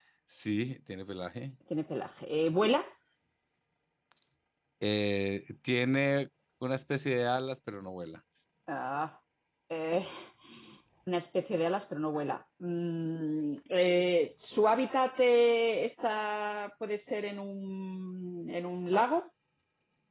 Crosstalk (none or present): none